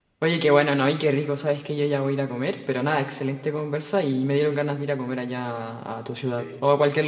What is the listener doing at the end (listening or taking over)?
listening